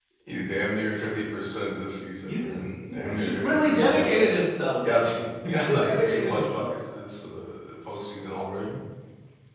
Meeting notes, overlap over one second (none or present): present